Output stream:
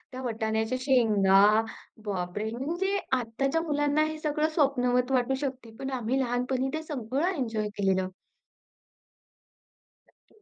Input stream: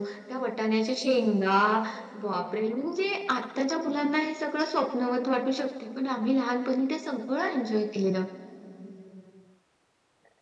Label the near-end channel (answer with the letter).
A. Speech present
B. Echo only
B